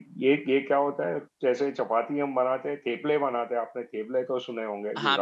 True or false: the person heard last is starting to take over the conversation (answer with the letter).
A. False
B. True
B